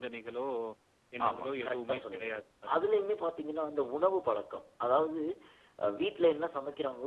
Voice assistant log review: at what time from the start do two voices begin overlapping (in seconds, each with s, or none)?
1.3 s